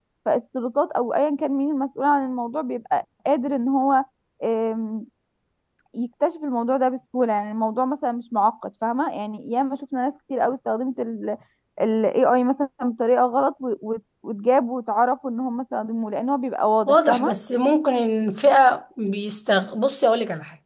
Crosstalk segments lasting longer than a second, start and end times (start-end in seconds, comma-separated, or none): none